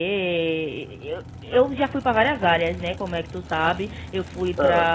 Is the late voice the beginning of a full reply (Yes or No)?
No